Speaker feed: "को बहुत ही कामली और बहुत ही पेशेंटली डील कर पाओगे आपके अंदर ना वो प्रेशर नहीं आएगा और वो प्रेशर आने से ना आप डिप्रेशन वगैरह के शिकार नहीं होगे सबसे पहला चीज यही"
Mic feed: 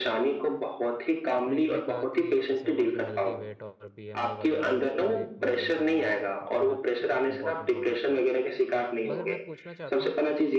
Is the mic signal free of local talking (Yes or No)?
No